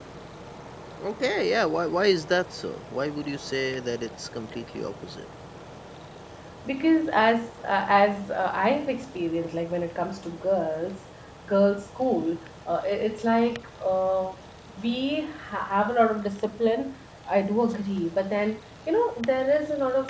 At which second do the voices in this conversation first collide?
none

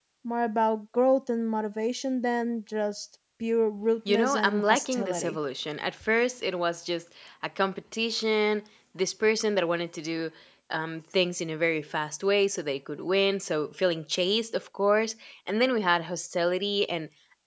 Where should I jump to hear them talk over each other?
4.0 s

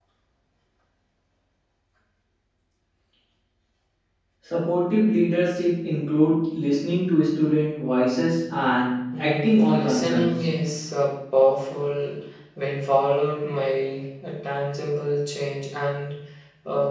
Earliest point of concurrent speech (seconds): 9.1 s

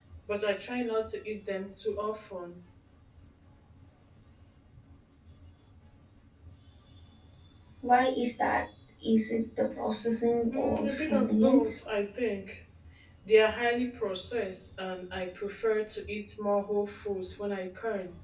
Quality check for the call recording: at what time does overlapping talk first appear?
10.5 s

